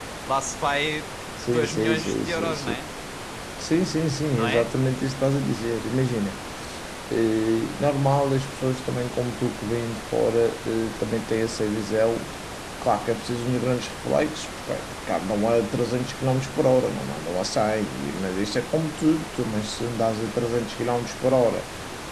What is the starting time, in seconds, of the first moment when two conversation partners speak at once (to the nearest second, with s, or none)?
2 s